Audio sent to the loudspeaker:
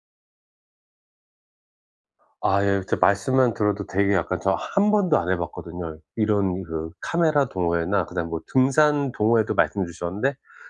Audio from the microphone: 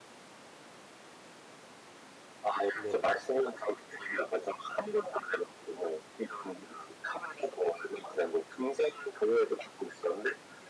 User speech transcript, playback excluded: 네네.

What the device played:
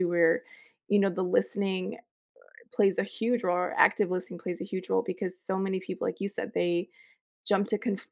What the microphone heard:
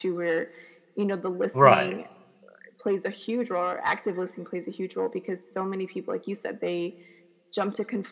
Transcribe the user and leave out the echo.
Right,

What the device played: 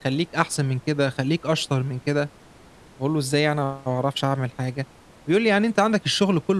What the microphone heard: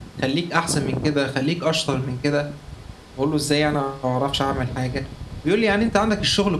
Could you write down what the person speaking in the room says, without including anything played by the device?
none

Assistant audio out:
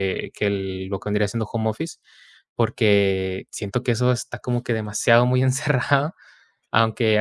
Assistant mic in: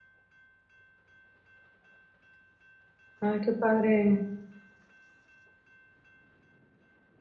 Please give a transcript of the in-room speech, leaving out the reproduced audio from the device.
ay, qué padre,

